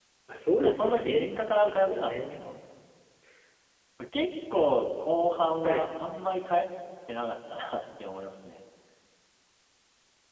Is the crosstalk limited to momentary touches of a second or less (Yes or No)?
No